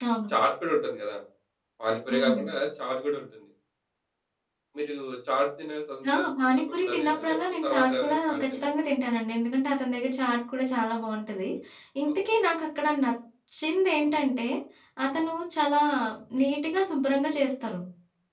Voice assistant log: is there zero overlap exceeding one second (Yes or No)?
No